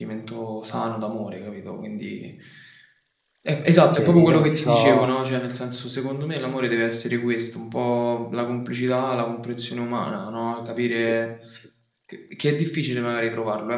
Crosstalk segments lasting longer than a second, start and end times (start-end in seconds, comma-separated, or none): 3.8-5.1